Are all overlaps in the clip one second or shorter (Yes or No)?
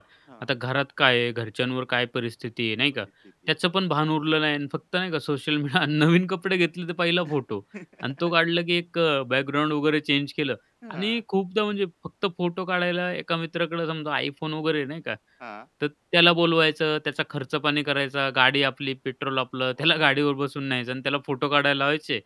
Yes